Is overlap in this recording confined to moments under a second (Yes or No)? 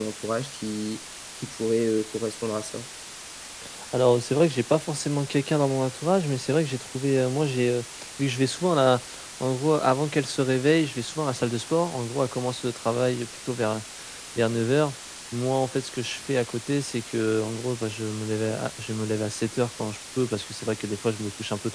Yes